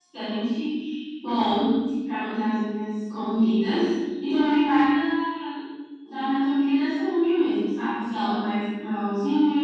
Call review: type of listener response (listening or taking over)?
listening